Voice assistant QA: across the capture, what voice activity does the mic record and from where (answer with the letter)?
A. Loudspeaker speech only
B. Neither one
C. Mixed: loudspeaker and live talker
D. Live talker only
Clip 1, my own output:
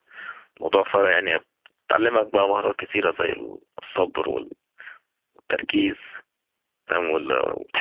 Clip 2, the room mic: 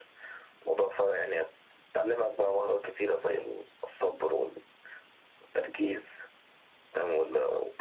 A